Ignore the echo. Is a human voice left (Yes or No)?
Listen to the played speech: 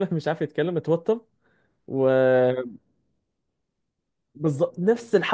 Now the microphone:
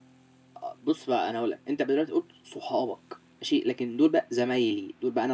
Yes